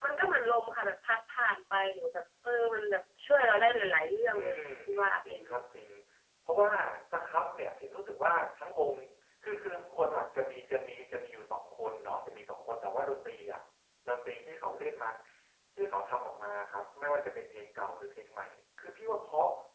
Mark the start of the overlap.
4.3 s

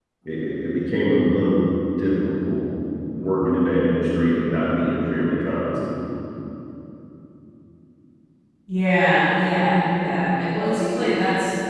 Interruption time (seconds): none

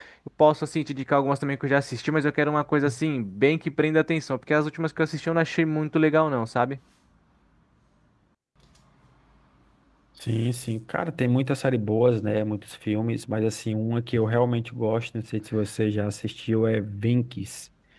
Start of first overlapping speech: none

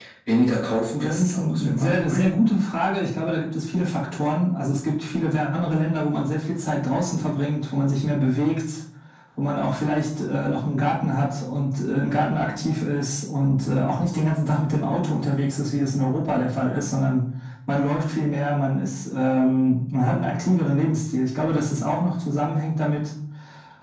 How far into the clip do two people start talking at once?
1.0 s

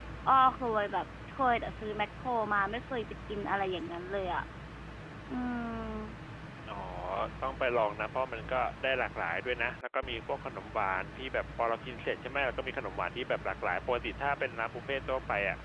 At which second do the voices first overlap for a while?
none

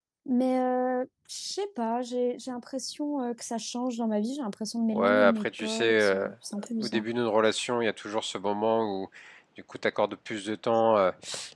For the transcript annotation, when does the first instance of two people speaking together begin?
4.9 s

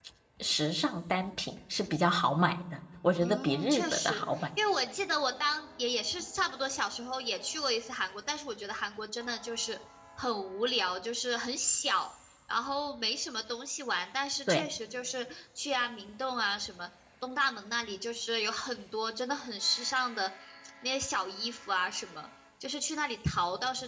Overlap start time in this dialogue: 3.2 s

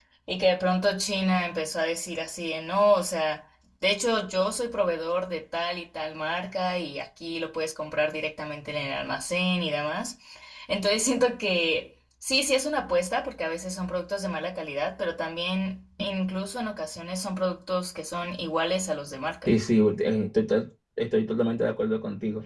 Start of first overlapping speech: none

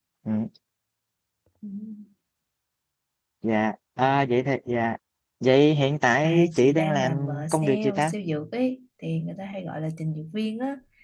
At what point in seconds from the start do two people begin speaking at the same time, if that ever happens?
6.2 s

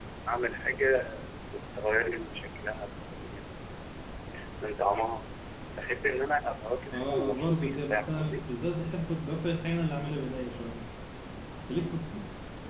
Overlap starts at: 6.9 s

